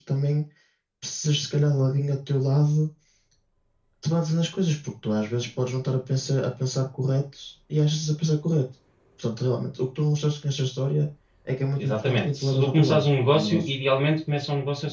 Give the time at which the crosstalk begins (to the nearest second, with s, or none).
12 s